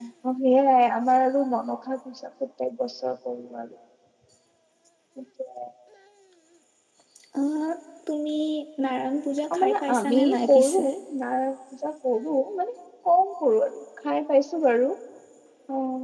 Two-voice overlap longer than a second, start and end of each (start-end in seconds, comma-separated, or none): 9.6-10.8